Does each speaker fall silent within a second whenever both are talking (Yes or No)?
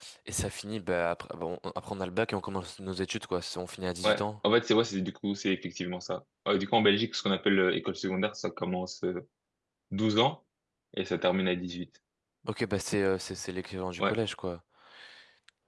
Yes